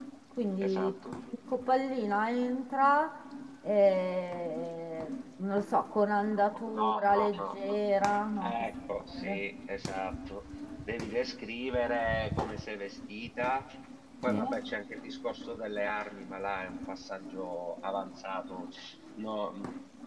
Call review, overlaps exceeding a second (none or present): present